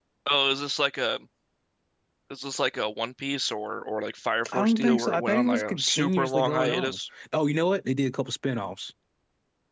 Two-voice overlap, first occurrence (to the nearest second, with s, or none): 4 s